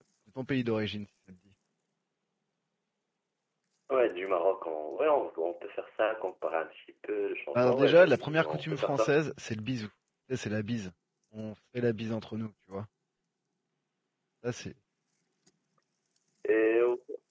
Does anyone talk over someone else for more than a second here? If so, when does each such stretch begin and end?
7.5-9.2

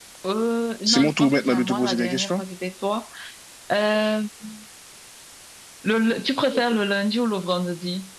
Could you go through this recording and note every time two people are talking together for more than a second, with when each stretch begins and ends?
0.9-2.4

